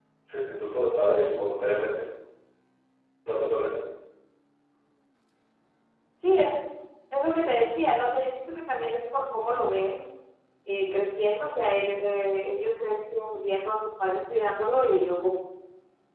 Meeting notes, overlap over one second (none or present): none